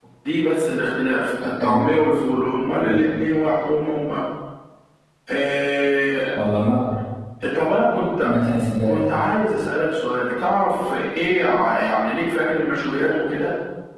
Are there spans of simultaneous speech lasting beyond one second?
No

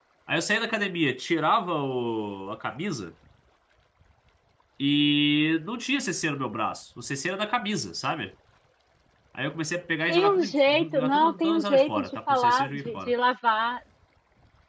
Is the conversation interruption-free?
No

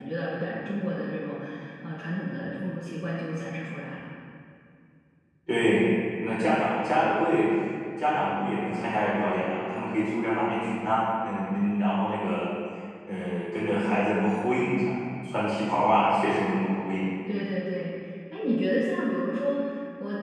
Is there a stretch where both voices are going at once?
No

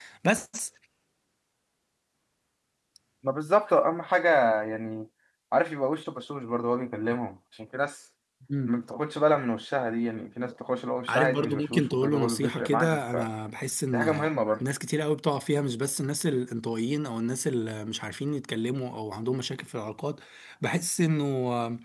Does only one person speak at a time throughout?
No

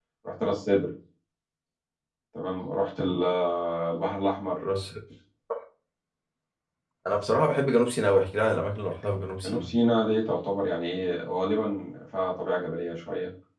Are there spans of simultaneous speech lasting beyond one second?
No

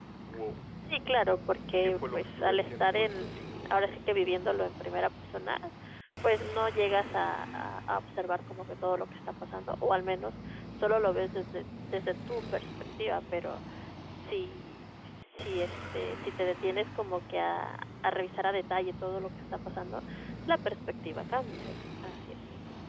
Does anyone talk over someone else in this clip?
Yes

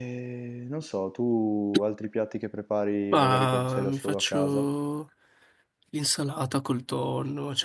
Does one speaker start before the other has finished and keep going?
Yes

